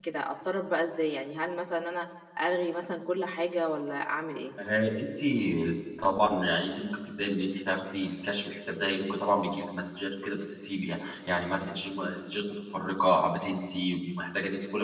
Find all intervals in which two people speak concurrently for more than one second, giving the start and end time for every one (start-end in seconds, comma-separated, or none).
none